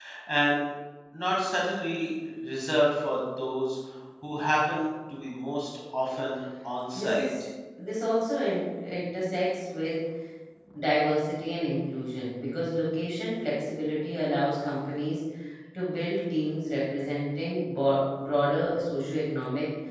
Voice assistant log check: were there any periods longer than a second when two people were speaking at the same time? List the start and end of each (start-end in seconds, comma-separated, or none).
none